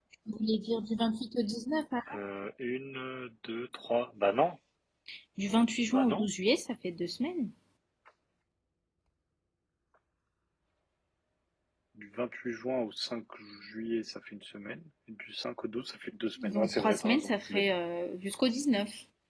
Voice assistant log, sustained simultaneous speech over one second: present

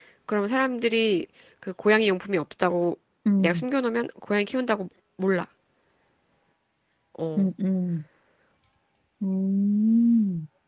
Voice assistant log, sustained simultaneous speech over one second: none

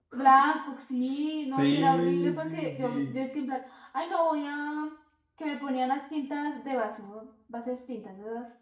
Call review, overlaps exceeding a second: present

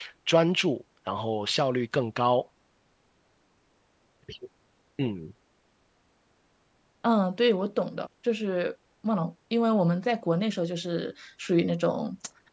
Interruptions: none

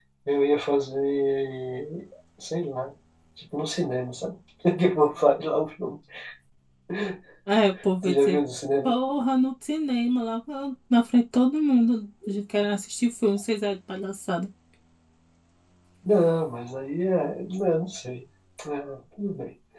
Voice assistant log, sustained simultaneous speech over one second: none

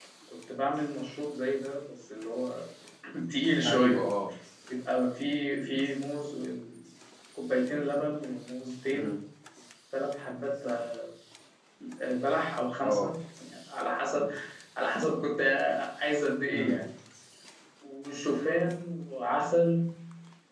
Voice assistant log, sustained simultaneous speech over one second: none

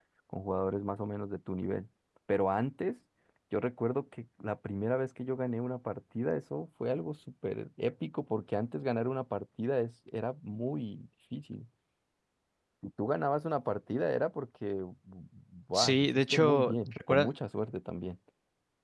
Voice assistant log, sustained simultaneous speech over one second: present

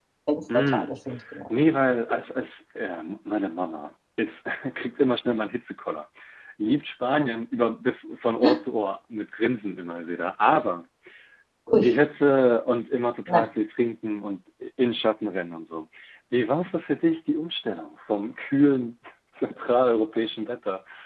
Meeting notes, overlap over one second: none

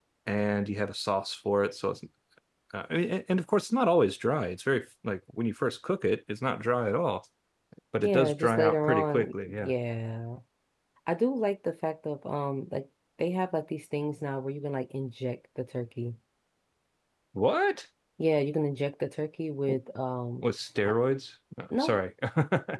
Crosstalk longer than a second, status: present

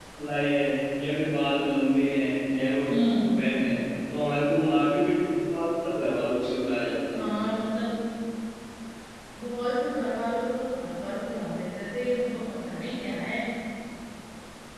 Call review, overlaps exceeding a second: none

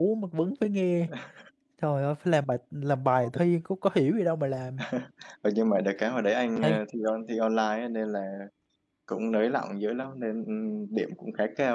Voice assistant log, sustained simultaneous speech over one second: none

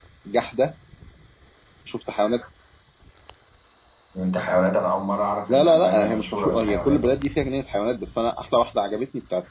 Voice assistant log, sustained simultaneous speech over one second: present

